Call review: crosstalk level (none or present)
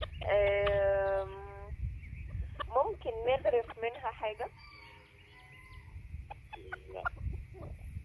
none